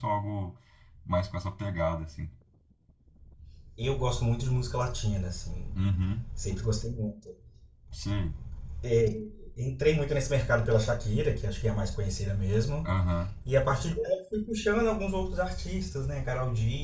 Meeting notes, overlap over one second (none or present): none